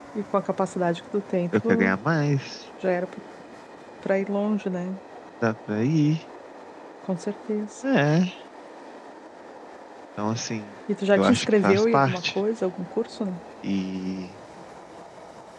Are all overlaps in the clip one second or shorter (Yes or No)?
No